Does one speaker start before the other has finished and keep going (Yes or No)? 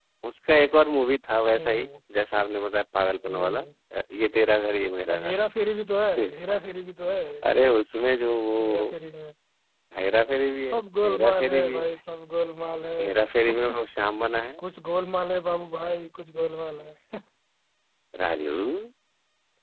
Yes